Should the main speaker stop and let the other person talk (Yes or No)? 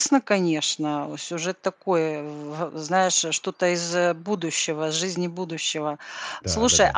No